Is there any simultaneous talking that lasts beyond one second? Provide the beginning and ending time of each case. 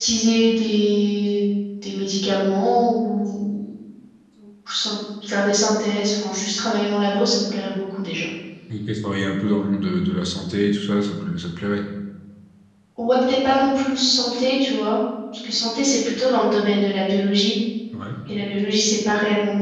none

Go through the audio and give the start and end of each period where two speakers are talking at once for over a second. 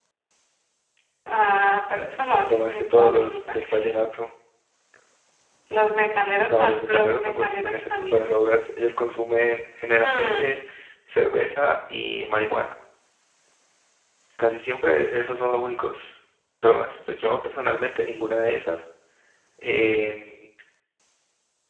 2.5-3.9, 6.5-8.2

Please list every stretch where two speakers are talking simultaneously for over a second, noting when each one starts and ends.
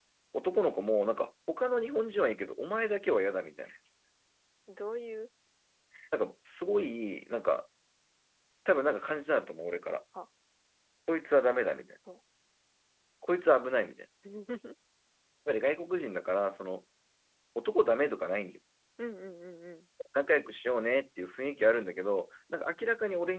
none

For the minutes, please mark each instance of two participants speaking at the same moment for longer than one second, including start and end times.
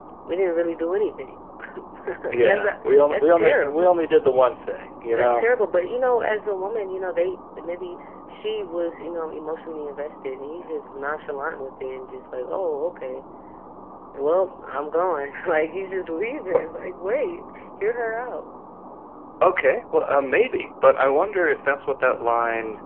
2.3-4.0

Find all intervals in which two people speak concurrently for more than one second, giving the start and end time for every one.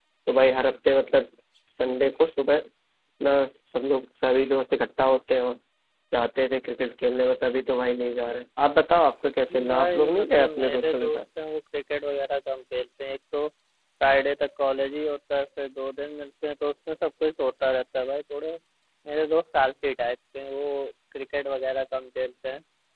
9.7-11.2

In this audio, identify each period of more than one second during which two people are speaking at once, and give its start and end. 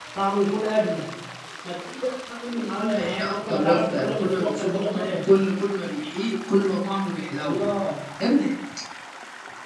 2.8-5.2

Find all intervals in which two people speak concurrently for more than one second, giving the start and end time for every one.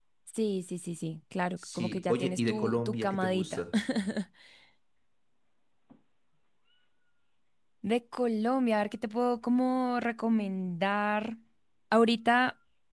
1.8-3.6

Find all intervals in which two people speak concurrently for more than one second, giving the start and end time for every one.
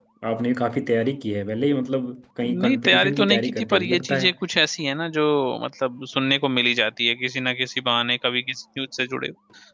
2.4-4.3

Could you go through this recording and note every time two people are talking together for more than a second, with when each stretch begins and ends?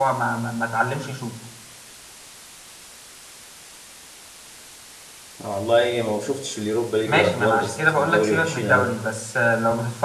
7.1-8.9

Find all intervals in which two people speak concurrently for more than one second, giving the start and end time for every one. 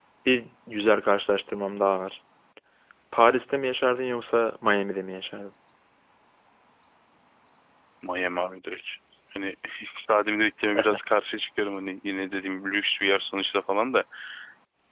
none

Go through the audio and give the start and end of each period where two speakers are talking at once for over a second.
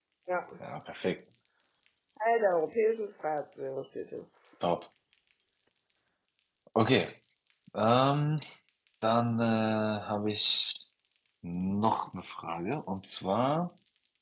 none

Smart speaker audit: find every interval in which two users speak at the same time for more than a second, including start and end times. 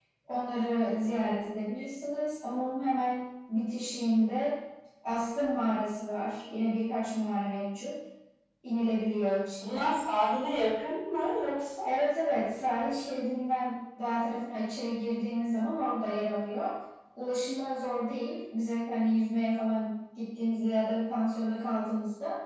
none

